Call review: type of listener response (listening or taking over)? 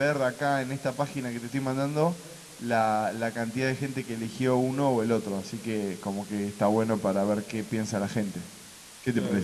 taking over